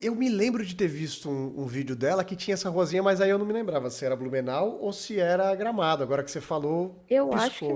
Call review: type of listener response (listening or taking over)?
taking over